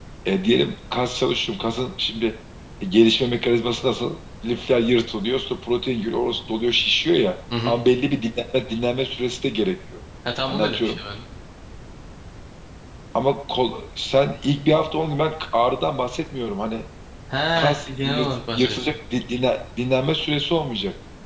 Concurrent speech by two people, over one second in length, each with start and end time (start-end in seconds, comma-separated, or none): 17.6-18.9